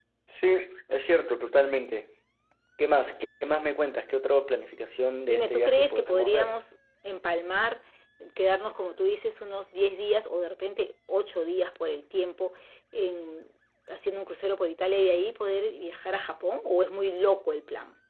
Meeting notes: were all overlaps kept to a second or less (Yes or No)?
No